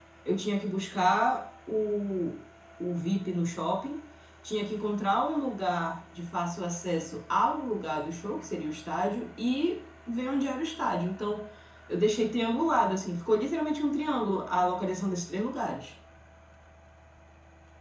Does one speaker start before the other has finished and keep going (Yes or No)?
No